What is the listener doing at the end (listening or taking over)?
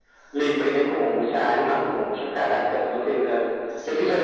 taking over